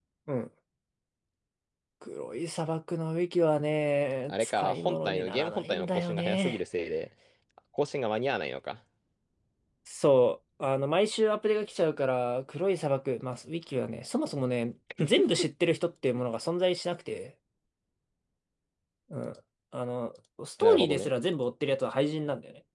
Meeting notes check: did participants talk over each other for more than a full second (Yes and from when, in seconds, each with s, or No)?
Yes, from 4.3 s